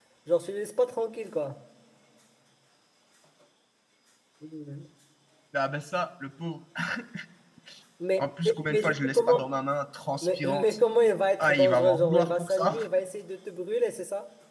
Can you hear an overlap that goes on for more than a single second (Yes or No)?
Yes